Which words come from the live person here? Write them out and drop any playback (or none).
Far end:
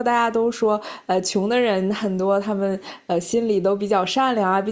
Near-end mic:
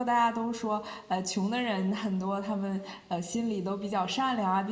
none